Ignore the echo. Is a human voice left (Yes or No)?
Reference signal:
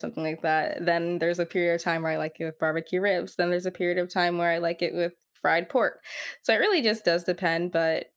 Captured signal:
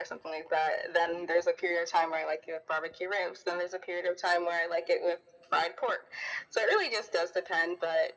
No